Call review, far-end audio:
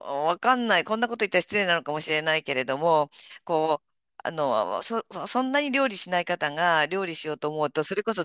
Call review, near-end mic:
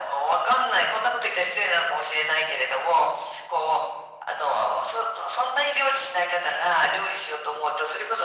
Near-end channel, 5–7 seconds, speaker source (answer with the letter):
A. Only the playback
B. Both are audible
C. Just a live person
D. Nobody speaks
A